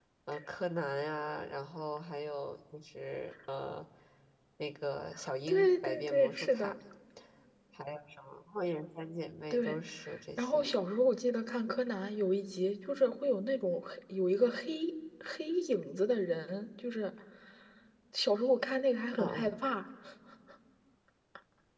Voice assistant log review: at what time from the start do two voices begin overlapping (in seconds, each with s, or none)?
5.5 s